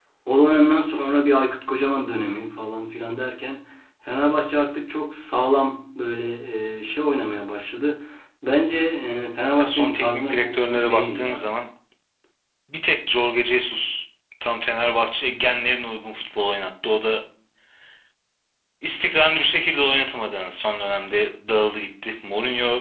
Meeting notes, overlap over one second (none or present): present